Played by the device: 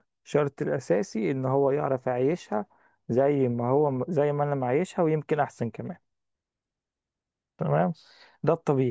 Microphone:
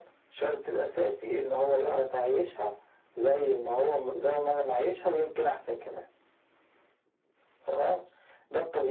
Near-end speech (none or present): none